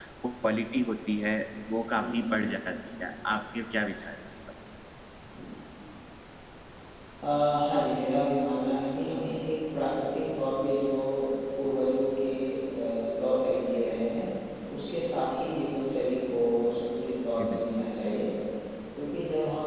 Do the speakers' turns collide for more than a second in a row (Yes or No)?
No